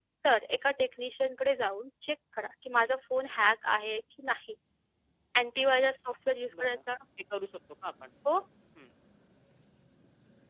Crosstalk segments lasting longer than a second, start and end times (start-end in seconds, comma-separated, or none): none